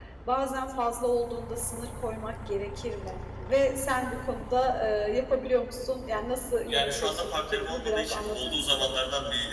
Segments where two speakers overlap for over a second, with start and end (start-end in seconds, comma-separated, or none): 6.7-8.9